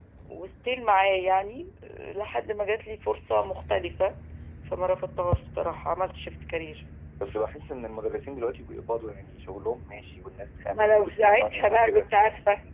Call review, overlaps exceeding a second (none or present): present